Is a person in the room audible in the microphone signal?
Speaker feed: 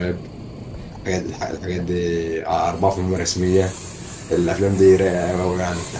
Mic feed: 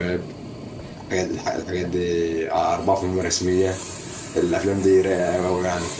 No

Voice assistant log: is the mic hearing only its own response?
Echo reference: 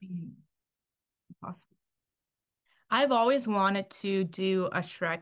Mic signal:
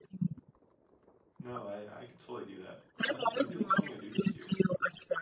No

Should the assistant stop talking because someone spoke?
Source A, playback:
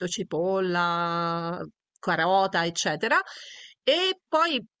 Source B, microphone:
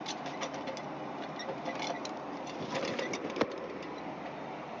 No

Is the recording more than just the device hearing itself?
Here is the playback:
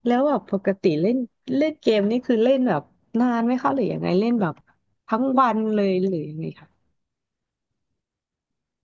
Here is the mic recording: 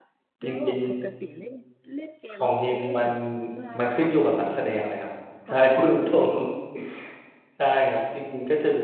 Yes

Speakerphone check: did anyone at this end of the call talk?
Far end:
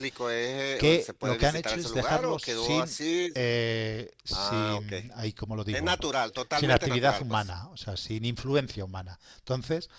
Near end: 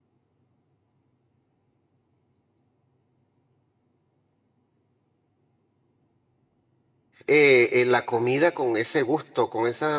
Yes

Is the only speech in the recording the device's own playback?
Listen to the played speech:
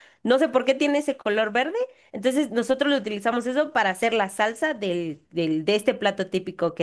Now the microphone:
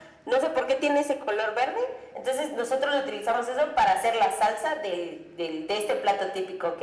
Yes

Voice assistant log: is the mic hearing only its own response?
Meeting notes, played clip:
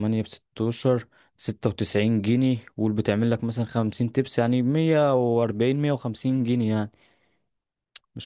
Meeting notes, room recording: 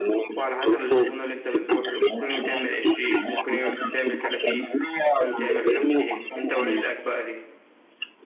No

